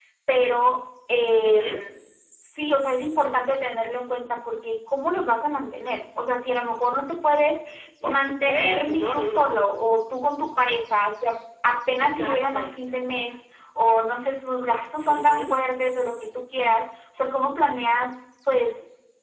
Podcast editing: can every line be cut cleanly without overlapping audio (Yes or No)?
No